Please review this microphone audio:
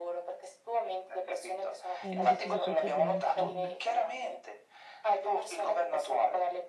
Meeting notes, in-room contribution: present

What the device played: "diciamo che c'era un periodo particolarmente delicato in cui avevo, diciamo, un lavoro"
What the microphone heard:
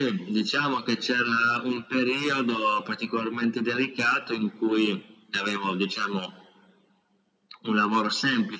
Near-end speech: none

